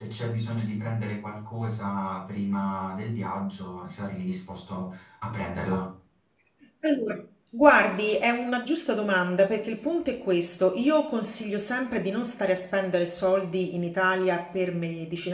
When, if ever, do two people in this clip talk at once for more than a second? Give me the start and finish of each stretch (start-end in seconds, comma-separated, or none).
none